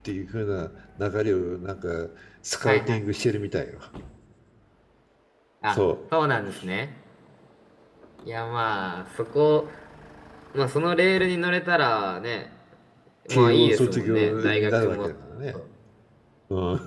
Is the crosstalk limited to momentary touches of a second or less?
No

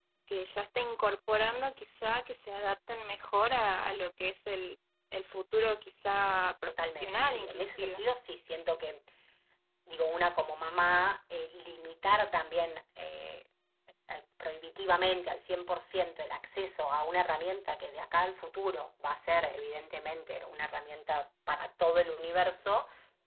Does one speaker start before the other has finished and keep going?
Yes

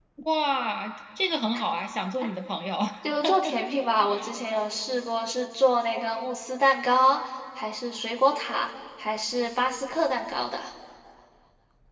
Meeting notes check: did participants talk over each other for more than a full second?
No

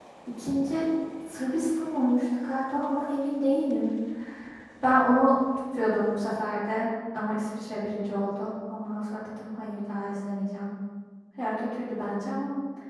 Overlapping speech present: No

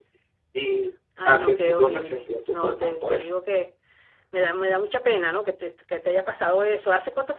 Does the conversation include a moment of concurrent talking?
Yes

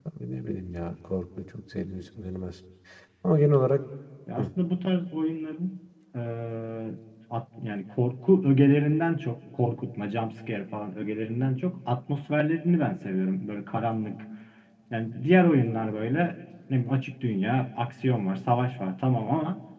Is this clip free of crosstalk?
Yes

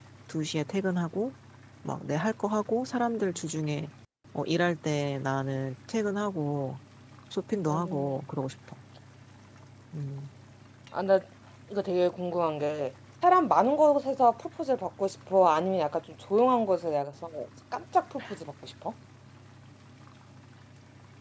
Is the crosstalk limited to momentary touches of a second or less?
Yes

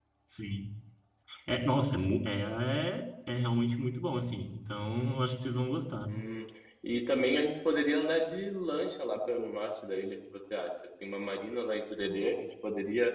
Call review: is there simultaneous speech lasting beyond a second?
No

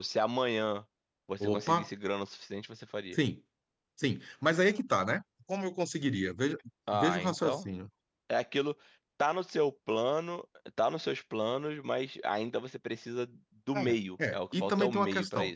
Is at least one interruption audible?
Yes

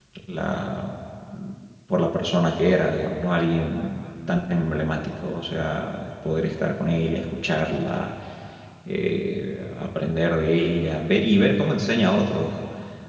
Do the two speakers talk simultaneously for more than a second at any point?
No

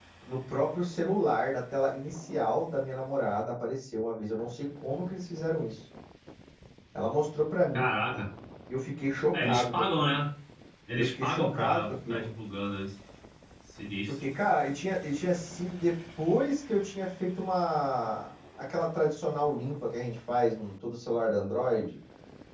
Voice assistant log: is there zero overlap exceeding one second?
No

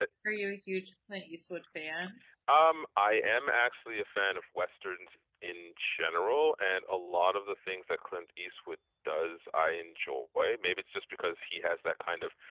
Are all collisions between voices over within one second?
Yes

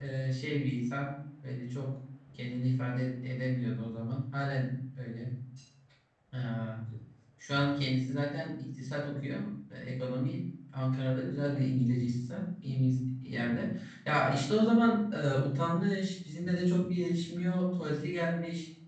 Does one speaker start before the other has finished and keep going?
No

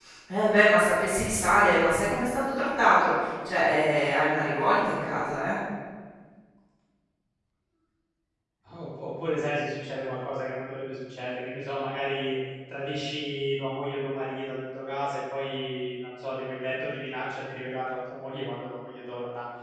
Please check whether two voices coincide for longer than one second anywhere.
No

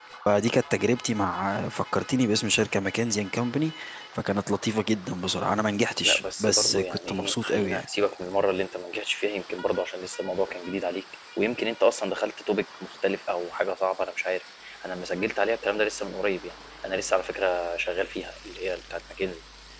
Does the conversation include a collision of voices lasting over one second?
Yes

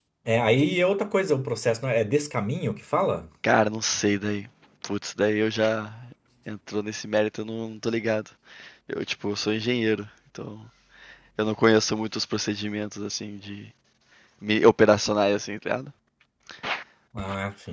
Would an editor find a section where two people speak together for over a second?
No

